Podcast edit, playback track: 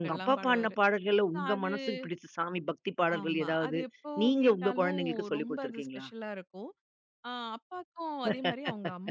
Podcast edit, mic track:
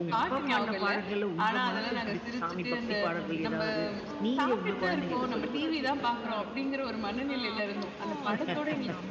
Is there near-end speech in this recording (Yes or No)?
Yes